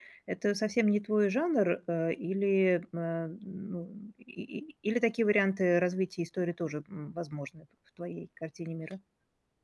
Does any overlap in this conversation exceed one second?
No

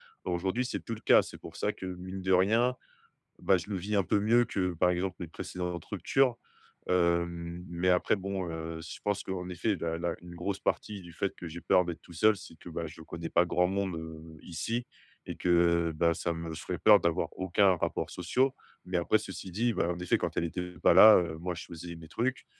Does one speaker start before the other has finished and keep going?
No

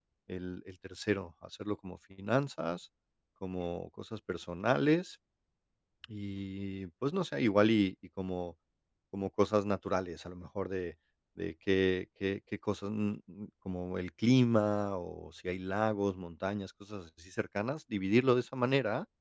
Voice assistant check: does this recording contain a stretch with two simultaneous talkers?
No

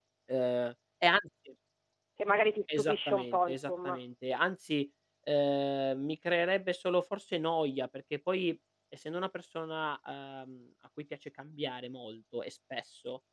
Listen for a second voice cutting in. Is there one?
Yes, from 2.7 s

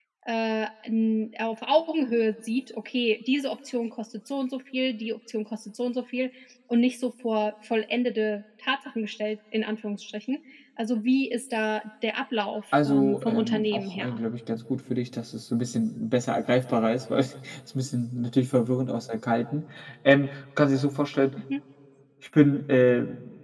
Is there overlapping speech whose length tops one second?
Yes, from 12.7 s

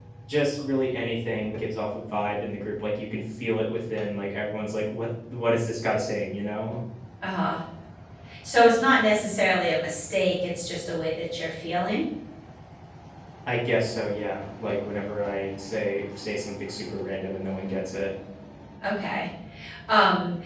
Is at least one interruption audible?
No

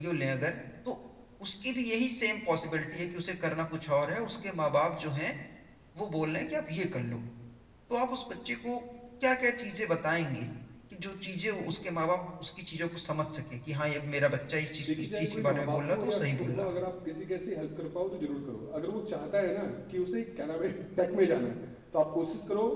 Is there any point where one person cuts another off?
Yes, from 14.9 s

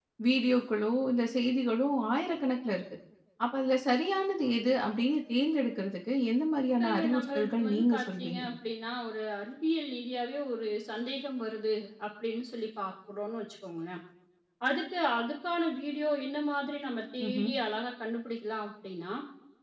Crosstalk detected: Yes, from 6.8 s

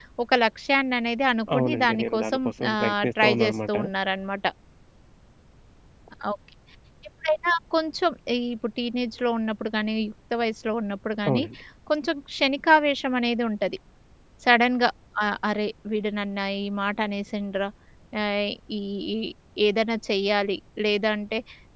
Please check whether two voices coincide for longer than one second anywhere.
Yes, from 1.5 s

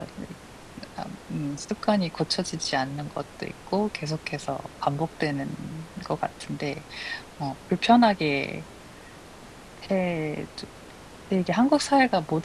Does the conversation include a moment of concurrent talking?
No

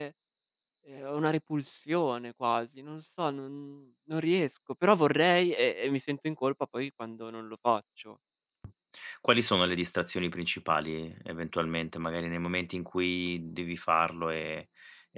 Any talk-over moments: No

